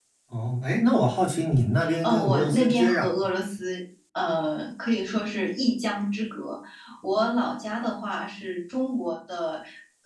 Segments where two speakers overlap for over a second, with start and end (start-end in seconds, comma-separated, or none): 2.0-3.3